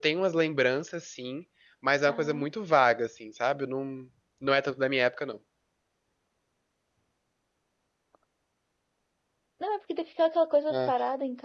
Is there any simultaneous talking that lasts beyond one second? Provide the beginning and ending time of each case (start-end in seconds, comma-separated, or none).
none